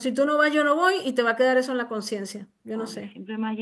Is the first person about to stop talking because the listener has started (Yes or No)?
Yes